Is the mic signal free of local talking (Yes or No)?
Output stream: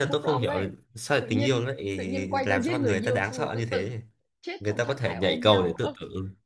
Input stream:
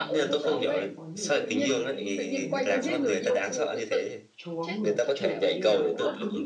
No